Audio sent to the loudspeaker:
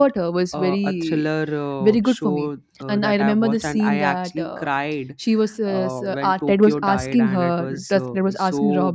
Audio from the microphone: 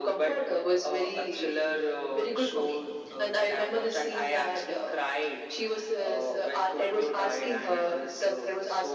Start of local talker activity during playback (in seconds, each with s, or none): none